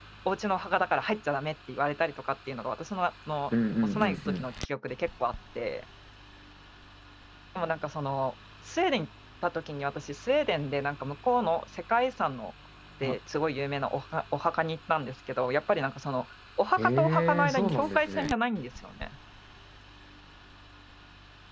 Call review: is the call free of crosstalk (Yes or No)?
No